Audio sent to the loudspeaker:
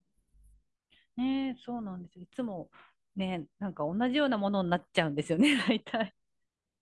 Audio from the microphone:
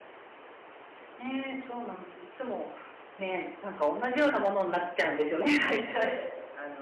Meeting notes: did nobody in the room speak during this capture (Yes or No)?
No